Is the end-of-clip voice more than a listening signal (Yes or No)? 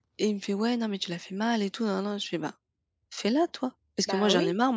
No